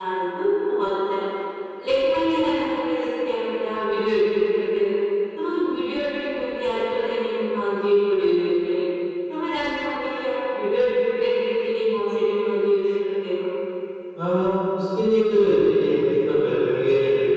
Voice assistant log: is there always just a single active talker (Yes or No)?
Yes